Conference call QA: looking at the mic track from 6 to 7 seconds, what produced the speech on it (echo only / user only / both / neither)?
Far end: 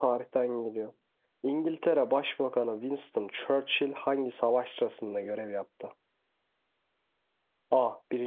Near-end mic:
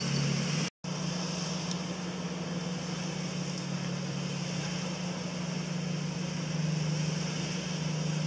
neither